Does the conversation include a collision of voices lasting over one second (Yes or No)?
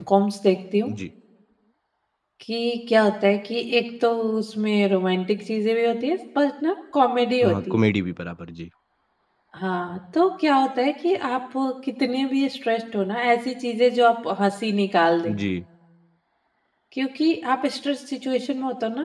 No